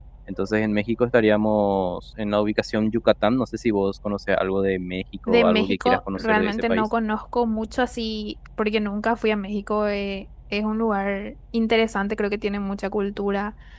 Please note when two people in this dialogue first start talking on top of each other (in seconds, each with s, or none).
5.3 s